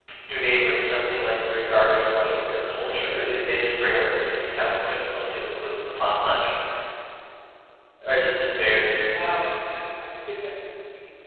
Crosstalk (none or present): none